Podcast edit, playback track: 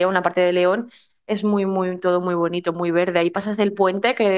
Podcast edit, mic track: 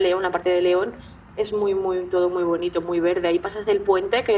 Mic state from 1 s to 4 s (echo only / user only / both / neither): echo only